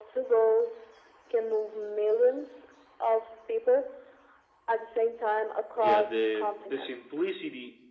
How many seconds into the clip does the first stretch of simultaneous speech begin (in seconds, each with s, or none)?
5.8 s